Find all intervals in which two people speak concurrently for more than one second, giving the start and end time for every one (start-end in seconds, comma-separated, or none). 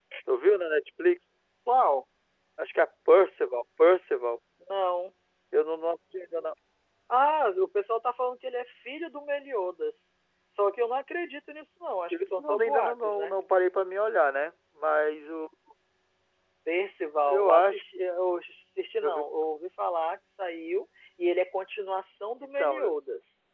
12.1-13.4